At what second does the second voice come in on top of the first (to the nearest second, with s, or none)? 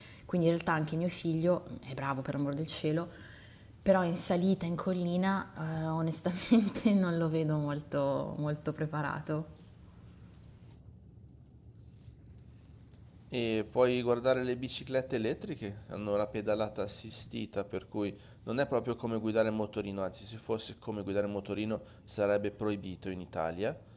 none